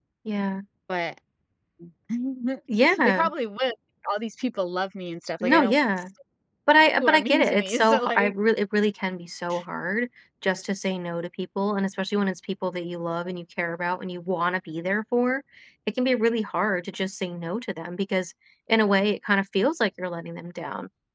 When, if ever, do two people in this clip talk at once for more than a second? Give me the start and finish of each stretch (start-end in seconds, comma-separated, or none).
6.9-8.3